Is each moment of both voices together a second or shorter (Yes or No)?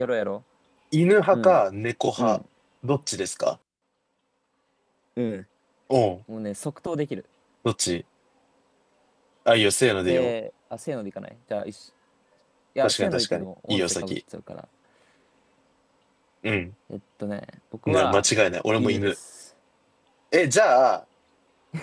No